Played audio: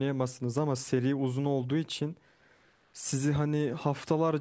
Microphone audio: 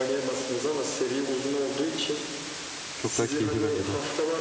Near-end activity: present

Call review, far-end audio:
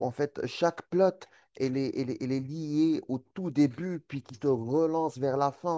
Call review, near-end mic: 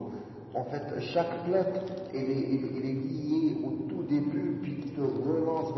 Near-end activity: none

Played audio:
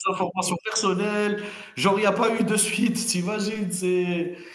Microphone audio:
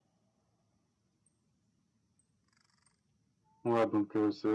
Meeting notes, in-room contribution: present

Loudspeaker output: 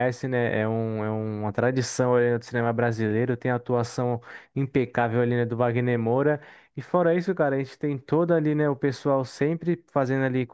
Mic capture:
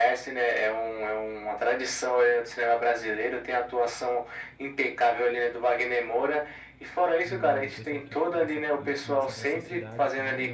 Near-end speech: present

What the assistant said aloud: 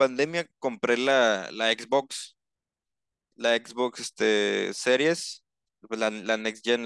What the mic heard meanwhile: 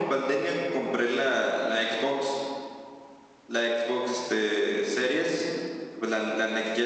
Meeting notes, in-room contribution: none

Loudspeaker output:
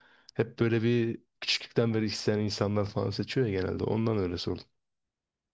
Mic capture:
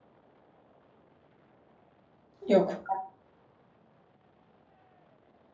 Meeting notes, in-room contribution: present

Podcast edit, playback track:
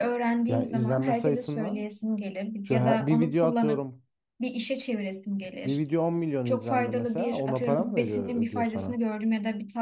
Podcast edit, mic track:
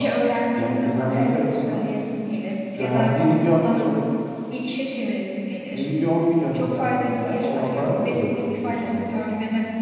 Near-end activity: none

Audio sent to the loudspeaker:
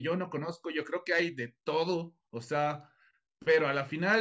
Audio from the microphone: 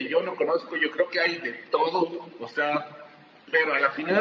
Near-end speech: none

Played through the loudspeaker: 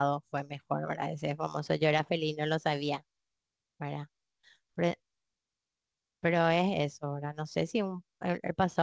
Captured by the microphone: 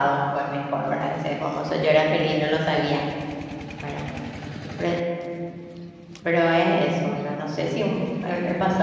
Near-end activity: none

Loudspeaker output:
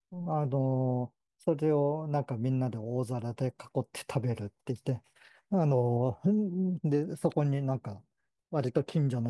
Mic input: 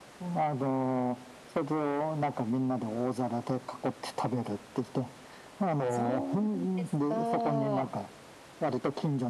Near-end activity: present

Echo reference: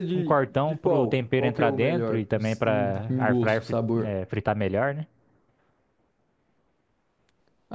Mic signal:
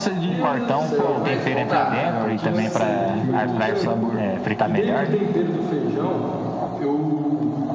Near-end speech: present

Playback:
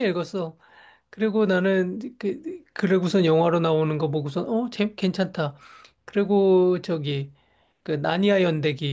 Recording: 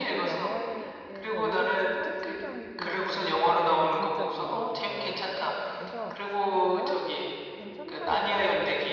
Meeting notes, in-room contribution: present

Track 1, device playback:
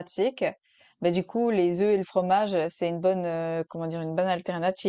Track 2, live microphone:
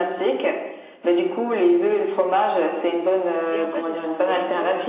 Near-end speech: present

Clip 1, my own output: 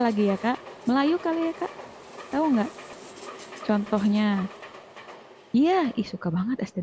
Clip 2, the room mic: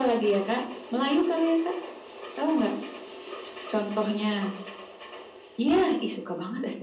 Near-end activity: none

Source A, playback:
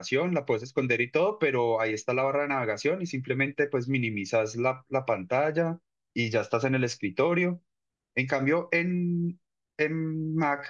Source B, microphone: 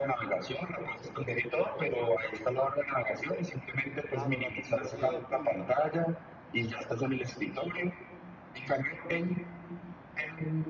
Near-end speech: present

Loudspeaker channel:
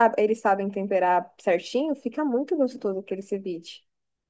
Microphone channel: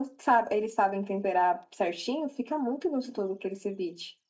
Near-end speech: none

